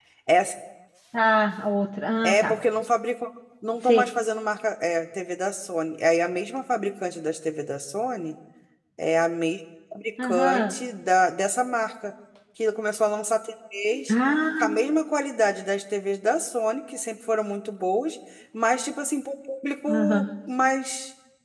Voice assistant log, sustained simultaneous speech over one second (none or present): none